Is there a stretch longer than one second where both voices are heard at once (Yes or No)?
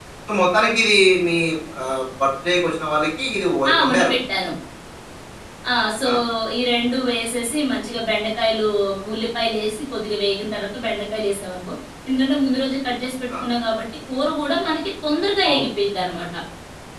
No